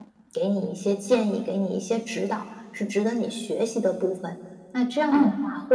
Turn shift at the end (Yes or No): No